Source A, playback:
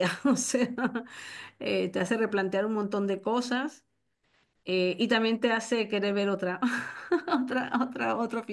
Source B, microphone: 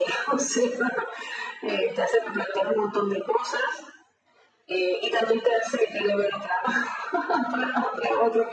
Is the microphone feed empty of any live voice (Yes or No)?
Yes